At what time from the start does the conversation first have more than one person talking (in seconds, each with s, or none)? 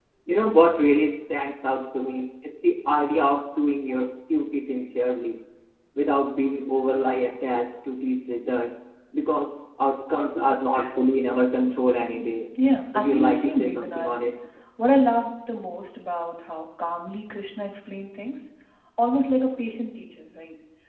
12.9 s